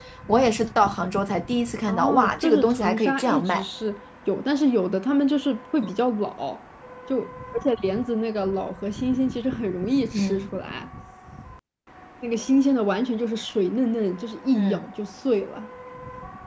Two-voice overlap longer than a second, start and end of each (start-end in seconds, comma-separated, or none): 1.9-3.7